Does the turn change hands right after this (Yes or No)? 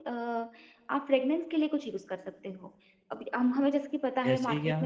No